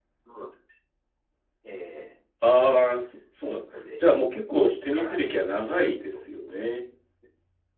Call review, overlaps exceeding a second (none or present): present